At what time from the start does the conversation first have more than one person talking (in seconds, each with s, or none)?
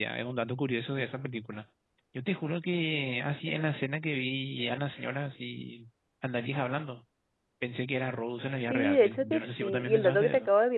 8.7 s